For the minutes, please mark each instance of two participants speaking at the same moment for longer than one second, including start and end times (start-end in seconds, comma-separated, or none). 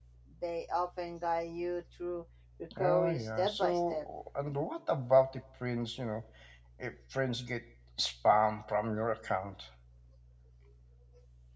2.8-4.0